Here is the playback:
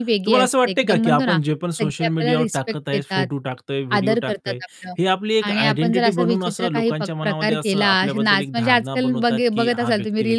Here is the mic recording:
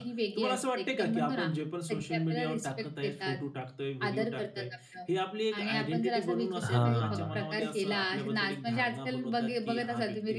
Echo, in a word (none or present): present